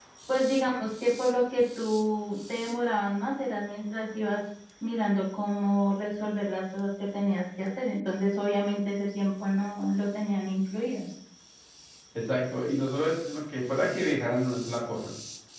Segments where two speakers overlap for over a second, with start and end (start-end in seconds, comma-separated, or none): none